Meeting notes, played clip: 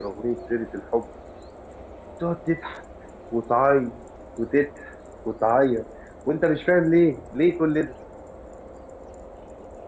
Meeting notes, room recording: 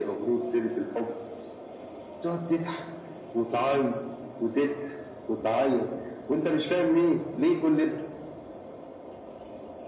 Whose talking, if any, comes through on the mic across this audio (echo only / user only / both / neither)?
echo only